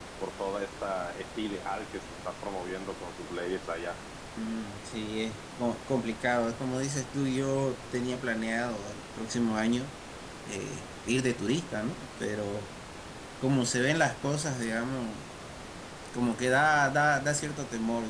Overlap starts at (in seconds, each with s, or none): none